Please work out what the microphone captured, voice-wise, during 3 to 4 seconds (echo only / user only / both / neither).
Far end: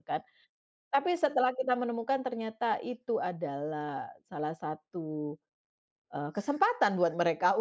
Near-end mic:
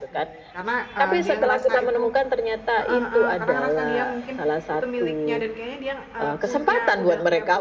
both